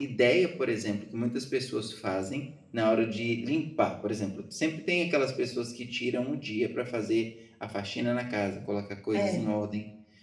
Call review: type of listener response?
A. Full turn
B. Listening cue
B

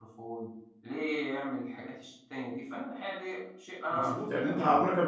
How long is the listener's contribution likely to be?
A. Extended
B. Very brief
A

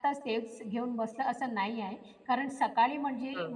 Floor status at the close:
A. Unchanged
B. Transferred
A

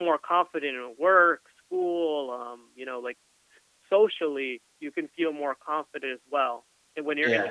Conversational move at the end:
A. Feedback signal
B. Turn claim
A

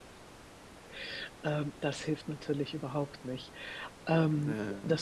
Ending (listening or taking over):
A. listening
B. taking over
A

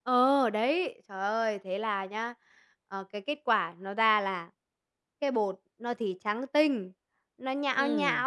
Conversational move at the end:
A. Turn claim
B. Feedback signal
B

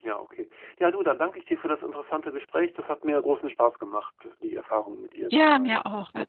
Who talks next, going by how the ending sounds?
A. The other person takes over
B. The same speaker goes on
A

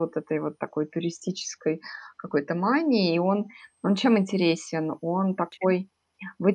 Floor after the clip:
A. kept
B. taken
A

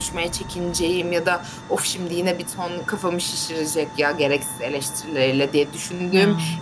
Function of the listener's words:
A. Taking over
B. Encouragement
B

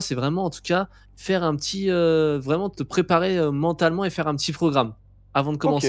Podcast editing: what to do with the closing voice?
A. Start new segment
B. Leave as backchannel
A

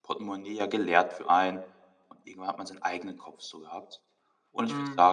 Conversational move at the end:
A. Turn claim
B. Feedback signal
B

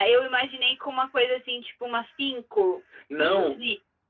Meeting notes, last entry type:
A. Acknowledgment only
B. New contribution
B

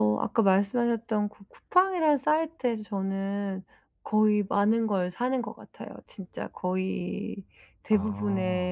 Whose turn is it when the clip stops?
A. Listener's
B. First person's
B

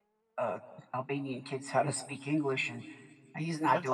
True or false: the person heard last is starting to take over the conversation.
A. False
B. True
A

